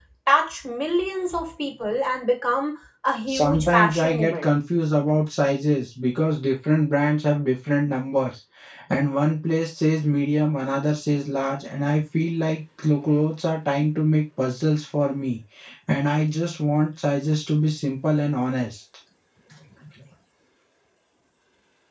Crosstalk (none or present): present